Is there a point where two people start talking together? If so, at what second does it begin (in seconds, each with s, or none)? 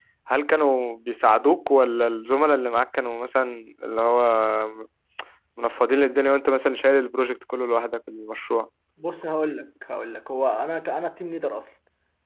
none